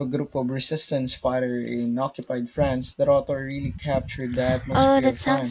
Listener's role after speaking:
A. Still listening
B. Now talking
B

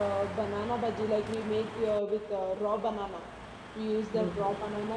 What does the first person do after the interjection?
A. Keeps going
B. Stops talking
A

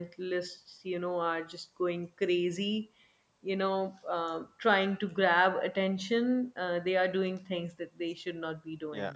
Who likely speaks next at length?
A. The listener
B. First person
A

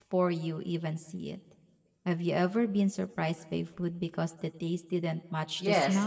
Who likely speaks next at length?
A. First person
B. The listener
B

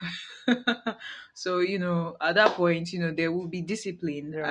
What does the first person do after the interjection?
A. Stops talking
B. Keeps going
A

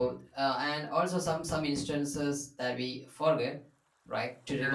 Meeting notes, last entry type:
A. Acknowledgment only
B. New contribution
A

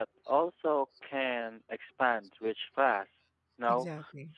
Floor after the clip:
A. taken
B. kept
B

